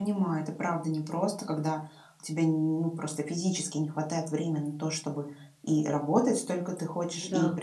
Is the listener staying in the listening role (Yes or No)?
Yes